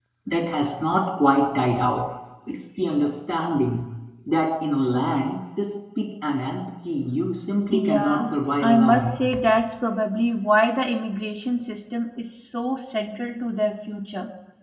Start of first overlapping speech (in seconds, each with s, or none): 7.7 s